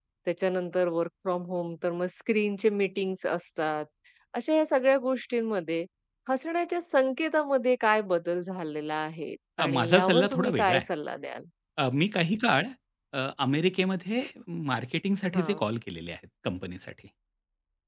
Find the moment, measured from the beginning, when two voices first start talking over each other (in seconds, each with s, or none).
9.6 s